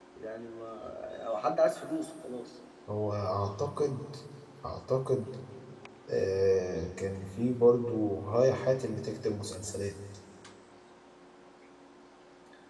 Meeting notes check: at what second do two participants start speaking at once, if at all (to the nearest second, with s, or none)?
none